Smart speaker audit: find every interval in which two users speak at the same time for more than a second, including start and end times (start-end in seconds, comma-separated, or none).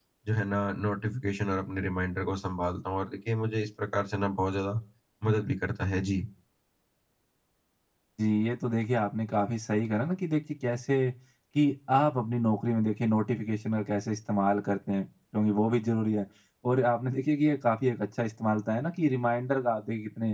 none